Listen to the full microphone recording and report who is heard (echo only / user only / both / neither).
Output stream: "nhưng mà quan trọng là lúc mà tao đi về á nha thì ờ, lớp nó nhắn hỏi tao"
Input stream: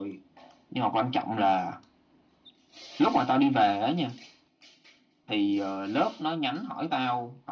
echo only